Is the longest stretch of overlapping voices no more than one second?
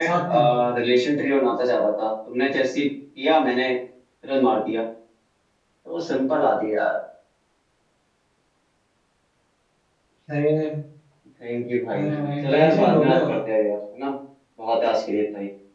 No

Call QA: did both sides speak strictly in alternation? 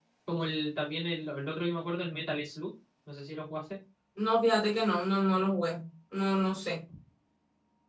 Yes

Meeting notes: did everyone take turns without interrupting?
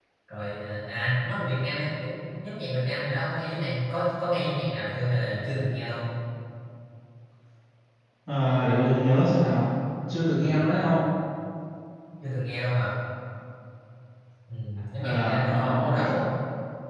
No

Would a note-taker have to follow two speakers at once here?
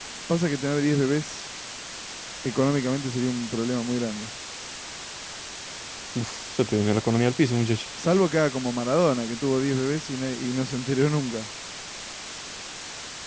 No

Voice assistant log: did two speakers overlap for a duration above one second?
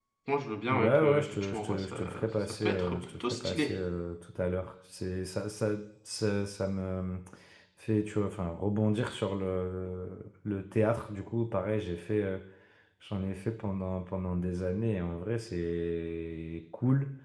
Yes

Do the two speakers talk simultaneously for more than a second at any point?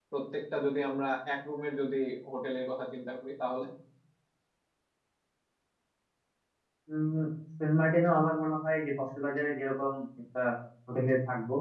No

